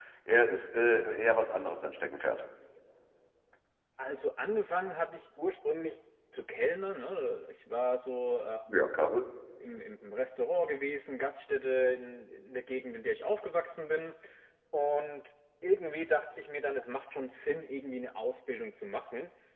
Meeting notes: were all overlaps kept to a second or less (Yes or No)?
Yes